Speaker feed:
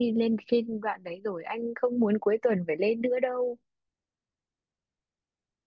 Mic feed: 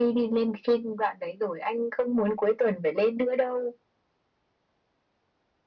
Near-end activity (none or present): none